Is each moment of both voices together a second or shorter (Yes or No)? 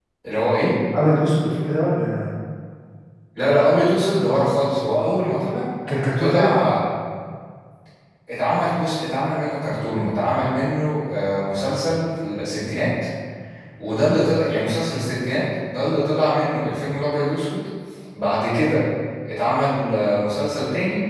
Yes